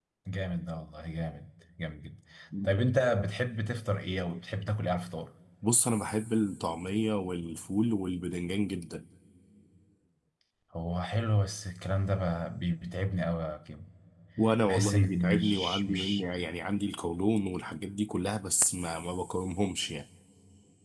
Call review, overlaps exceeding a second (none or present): present